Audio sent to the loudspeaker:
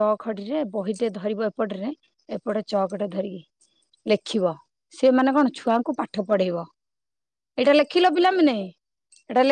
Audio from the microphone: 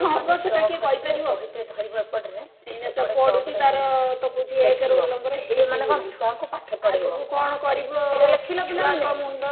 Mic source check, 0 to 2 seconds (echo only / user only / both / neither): both